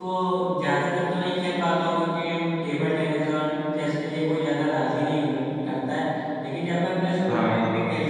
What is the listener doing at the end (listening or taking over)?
listening